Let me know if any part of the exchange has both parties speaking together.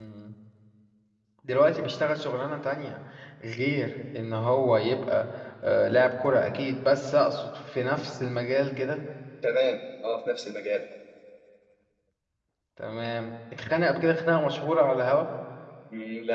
No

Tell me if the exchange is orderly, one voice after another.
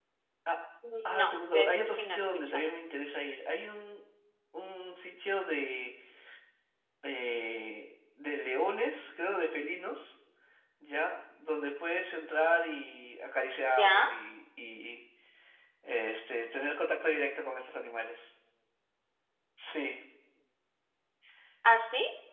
No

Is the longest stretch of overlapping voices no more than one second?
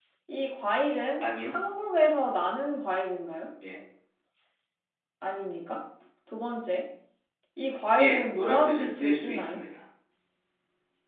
No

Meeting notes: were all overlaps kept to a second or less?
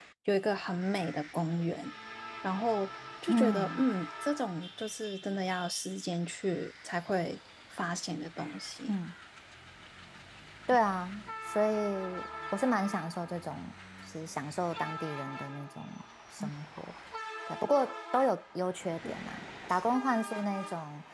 Yes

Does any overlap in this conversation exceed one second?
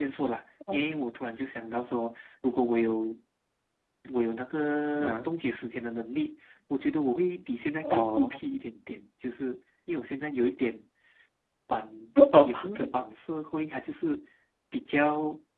No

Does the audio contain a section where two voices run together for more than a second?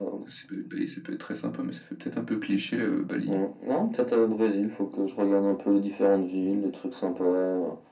No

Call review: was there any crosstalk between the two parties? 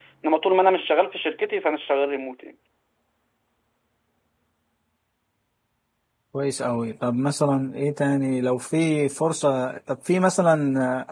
No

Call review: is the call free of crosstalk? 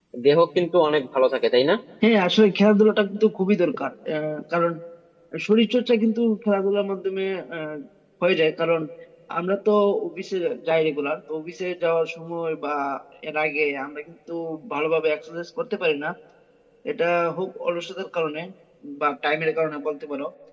Yes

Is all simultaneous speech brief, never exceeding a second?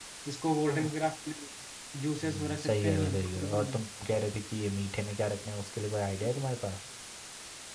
No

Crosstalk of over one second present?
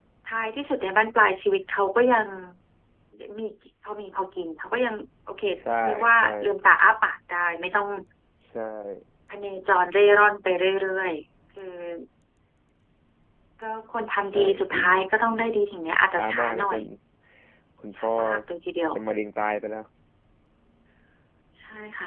Yes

